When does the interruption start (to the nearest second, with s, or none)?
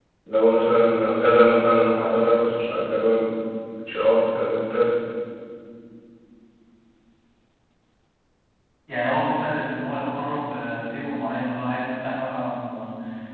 none